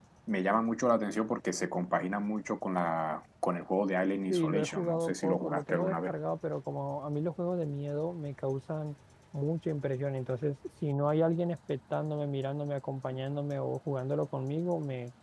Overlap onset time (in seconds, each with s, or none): 4.3 s